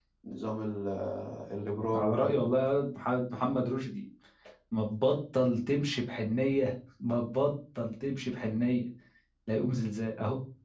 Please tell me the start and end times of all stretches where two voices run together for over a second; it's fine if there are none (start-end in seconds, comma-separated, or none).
none